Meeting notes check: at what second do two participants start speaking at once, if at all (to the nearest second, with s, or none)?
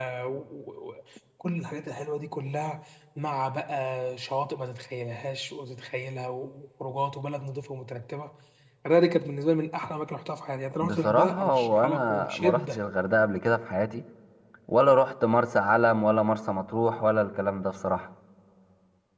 11 s